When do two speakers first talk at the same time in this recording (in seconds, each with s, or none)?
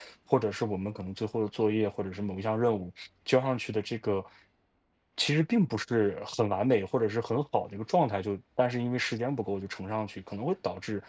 none